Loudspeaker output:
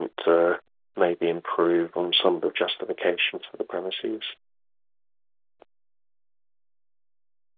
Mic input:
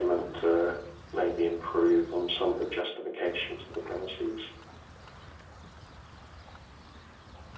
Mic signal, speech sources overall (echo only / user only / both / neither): echo only